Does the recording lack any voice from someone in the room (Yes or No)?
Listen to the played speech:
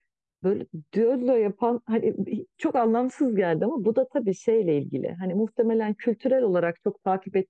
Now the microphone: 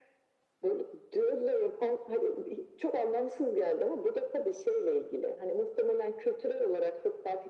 Yes